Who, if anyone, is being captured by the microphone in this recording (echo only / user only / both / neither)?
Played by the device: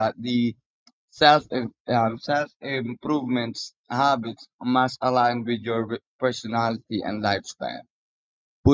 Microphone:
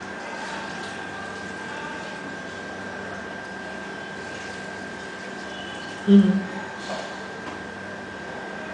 user only